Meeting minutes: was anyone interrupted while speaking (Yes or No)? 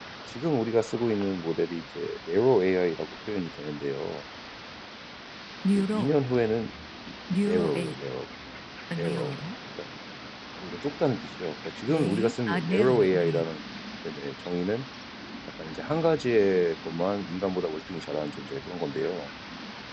Yes